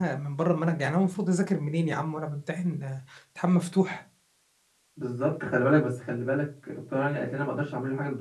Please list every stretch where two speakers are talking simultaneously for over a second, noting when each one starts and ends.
none

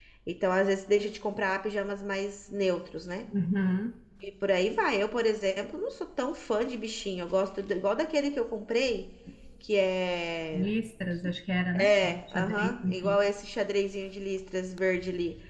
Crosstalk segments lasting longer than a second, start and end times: 11.8-13.2

